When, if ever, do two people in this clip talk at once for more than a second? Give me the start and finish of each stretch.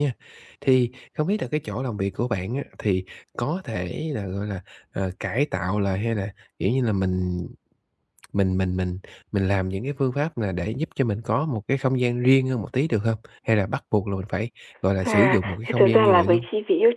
15.0-16.4

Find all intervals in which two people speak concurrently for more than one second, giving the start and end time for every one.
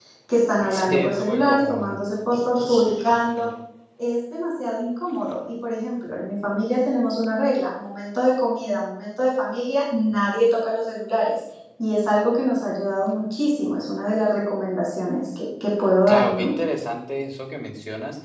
0.7-2.0

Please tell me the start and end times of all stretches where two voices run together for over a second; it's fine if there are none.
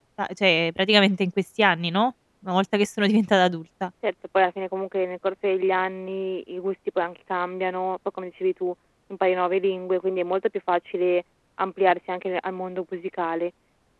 none

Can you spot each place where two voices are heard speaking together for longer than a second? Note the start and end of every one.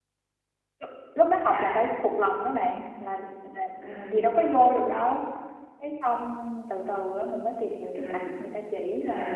none

